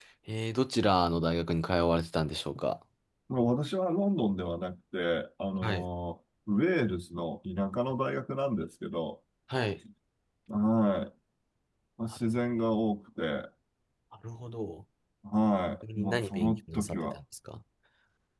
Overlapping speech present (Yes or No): Yes